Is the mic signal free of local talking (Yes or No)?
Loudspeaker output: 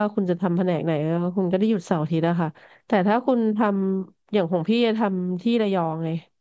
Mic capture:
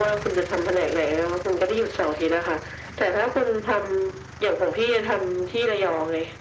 Yes